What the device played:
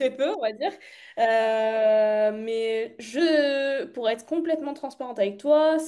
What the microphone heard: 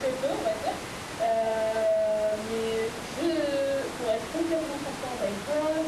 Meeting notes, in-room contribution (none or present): none